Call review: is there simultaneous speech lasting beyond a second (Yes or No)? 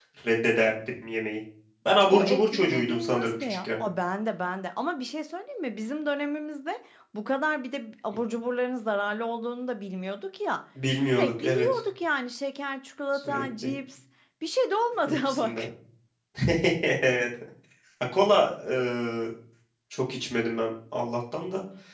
Yes